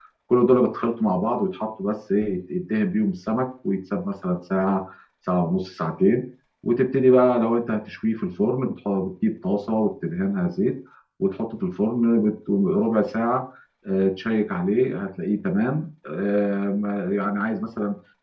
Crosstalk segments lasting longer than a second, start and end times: none

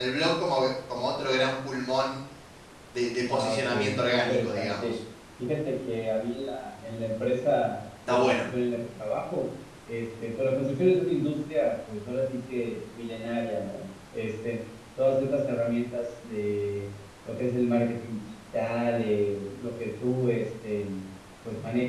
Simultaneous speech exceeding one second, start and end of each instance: 3.3-5.0

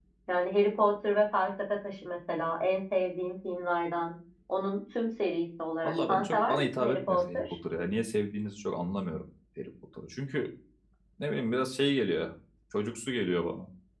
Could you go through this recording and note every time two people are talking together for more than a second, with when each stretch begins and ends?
5.8-7.4

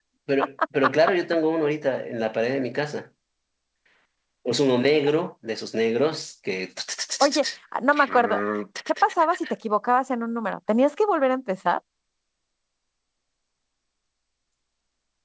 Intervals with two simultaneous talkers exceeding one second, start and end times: none

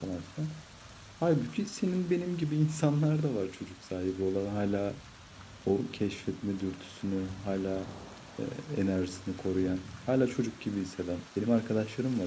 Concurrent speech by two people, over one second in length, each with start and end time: none

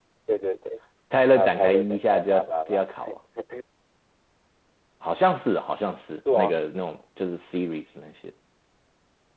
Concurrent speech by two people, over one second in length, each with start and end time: 1.4-2.9

